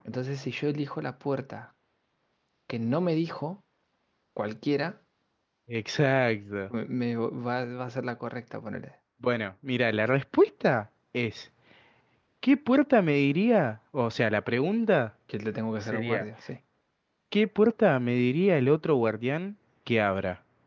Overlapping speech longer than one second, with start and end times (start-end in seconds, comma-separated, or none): none